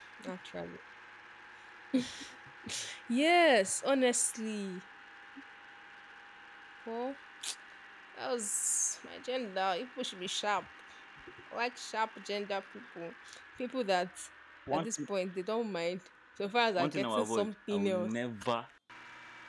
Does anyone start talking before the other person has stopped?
Yes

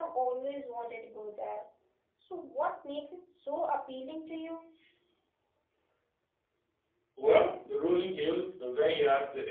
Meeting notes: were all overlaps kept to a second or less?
Yes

